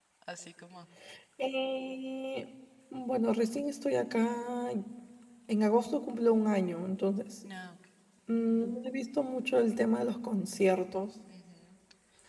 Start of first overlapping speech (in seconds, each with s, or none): none